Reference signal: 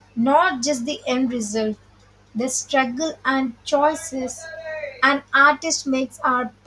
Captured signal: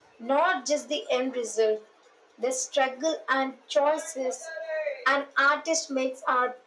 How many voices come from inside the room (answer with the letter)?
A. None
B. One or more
A